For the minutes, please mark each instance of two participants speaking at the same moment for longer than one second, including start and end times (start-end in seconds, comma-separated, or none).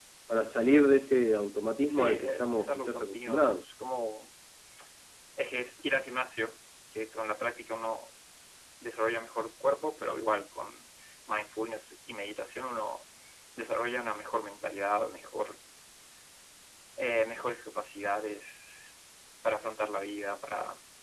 1.9-3.6